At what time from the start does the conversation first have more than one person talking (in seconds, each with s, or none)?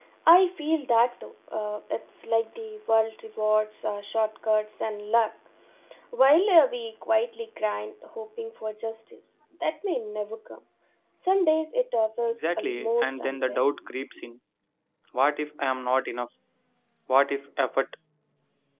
12.3 s